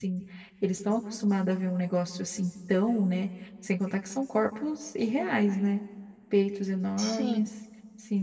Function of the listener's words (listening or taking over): listening